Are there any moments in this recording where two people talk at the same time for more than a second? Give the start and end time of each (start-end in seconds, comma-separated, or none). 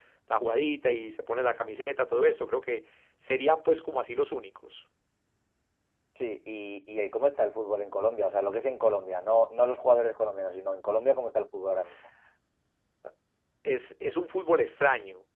none